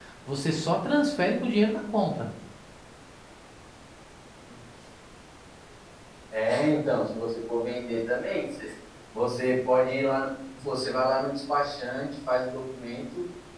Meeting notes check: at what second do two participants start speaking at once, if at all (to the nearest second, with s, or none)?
none